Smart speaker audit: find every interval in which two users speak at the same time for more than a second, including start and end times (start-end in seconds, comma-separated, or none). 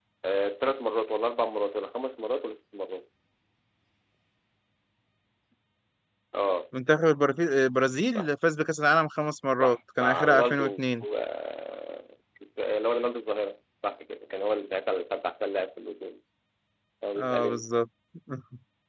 9.6-11.0